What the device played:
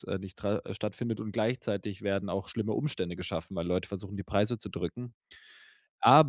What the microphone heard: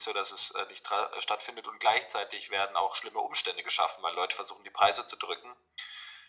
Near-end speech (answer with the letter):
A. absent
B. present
A